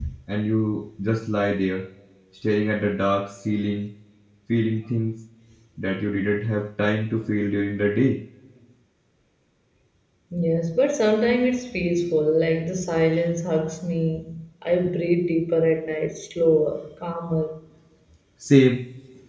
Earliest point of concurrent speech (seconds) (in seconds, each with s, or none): none